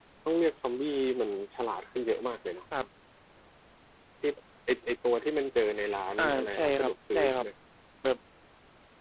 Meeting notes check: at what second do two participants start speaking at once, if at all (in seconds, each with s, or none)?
6.2 s